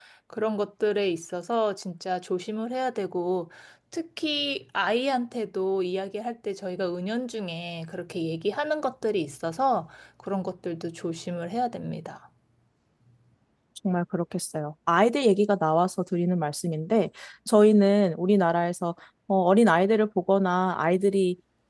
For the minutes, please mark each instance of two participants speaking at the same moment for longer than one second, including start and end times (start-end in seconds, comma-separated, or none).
none